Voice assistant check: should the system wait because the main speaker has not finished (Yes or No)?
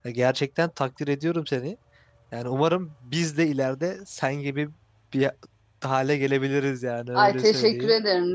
No